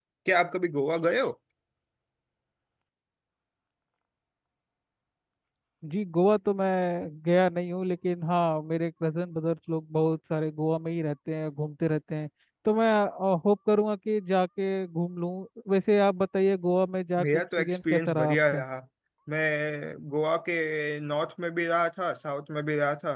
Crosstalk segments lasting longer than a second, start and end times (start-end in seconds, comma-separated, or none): 17.2-18.6